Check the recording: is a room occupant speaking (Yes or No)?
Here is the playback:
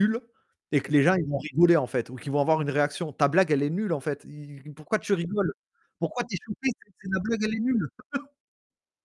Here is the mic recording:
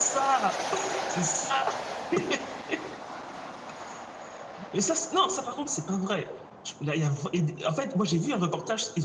Yes